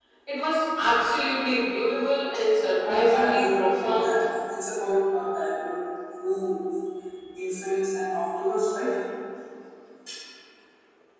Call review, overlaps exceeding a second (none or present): present